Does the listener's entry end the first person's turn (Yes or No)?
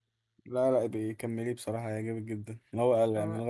No